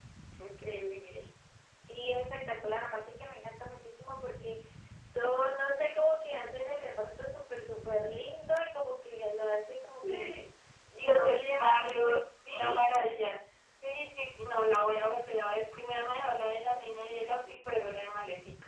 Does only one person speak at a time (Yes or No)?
No